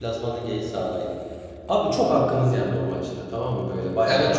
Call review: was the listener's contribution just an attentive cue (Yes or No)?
No